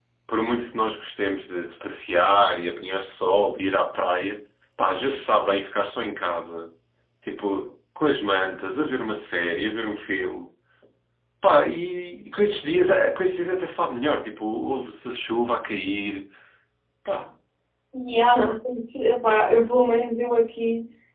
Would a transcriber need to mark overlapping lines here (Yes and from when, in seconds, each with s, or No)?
No